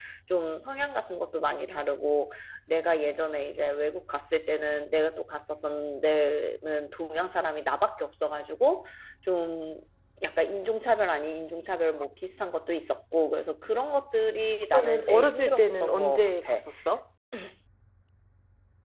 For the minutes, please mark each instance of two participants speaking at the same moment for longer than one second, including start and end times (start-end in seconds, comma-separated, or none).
14.7-16.6